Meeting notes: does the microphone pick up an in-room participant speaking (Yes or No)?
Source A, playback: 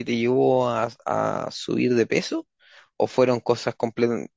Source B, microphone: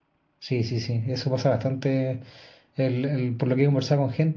Yes